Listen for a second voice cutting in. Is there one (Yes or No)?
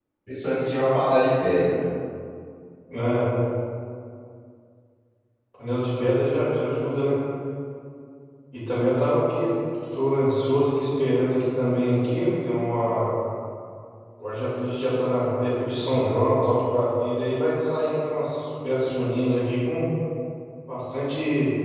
No